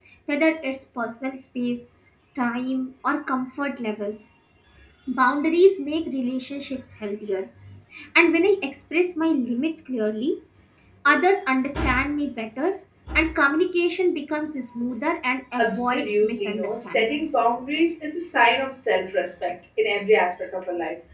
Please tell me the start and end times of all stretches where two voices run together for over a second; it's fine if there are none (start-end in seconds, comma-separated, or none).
15.6-17.2